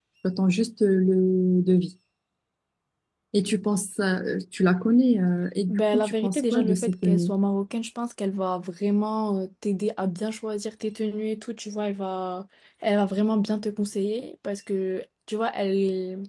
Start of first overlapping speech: 5.7 s

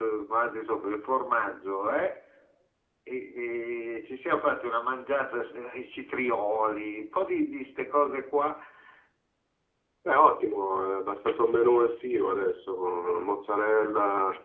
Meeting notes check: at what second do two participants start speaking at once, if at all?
none

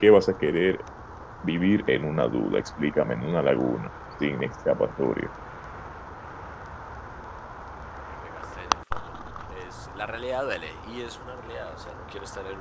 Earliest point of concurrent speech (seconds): none

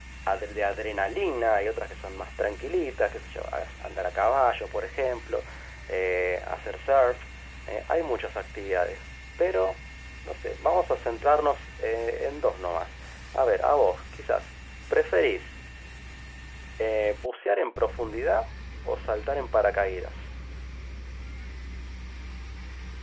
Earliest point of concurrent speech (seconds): none

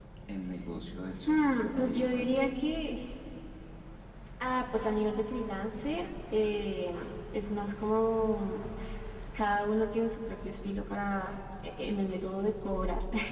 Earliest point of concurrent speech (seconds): 1.3 s

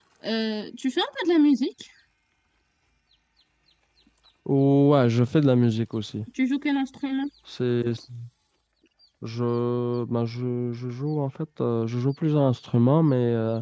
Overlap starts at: none

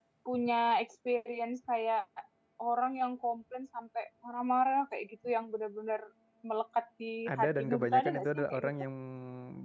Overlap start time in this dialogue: 7.3 s

